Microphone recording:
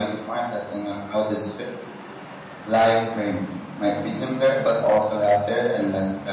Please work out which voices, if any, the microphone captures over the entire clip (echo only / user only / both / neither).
echo only